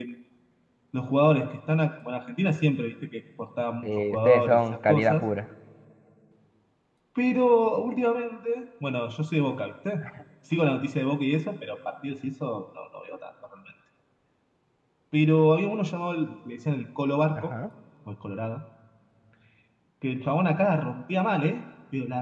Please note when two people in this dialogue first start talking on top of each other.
3.8 s

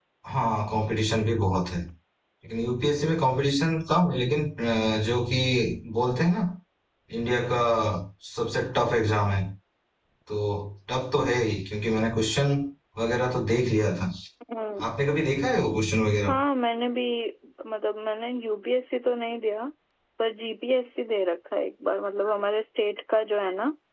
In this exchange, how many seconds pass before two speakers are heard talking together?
none

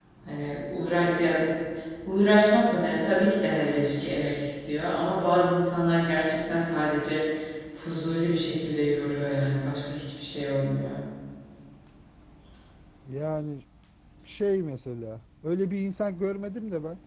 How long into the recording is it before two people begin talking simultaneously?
none

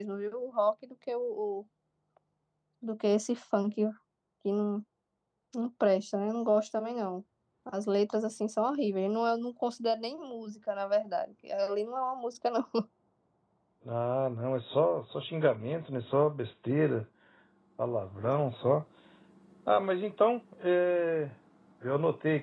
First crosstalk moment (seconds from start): none

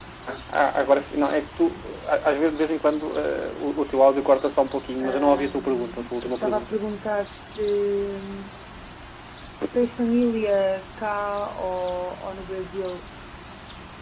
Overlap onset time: 5.0 s

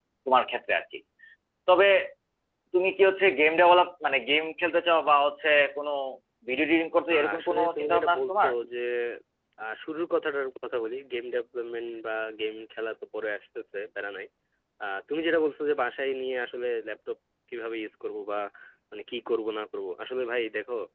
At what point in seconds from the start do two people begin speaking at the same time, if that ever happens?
7.1 s

